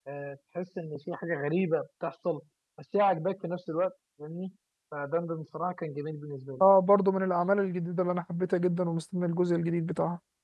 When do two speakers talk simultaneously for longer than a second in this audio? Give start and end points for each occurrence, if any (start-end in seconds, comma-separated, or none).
none